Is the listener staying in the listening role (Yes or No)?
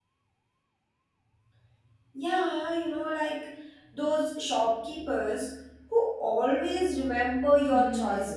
No